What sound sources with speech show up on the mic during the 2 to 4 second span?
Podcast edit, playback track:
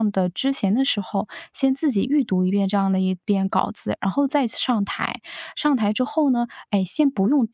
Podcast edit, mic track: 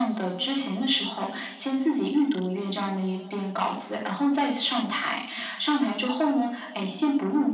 echo only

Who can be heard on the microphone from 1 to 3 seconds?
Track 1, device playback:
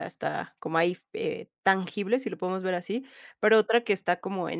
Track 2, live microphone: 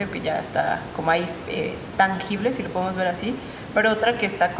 echo only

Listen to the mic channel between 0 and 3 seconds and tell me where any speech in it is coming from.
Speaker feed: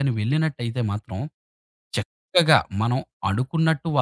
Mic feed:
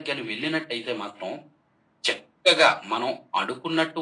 echo only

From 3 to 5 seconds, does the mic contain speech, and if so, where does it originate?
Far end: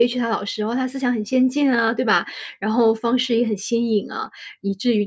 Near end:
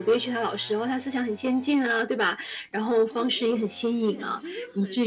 both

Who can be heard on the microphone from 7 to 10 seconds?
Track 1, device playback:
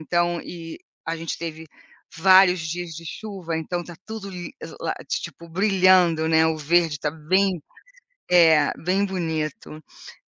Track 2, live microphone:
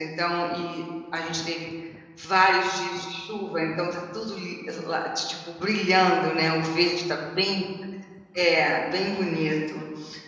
echo only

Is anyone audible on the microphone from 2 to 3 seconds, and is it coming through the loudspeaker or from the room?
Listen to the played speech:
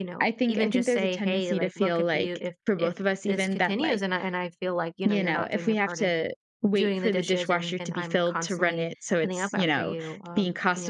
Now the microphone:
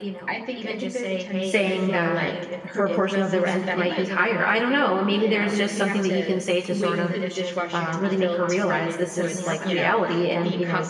both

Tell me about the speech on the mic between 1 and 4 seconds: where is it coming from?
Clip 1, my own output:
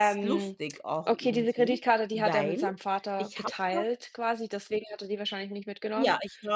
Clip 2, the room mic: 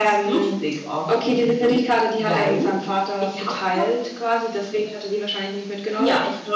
echo only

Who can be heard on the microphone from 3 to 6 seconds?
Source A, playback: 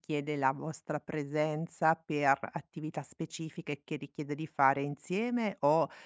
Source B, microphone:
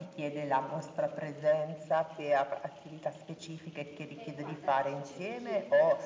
both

